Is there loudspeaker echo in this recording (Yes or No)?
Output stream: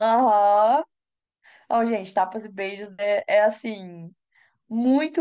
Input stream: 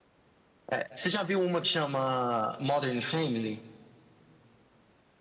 No